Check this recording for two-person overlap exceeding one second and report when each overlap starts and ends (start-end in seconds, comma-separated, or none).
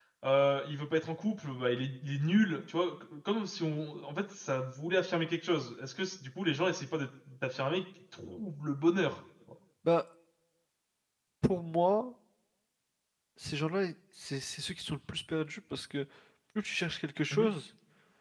none